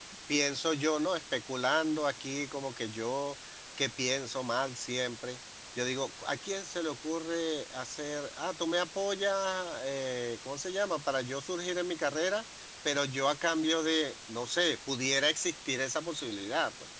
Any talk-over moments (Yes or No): No